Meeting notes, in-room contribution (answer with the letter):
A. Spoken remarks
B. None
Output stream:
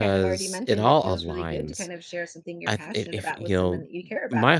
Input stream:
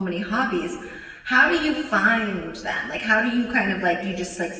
A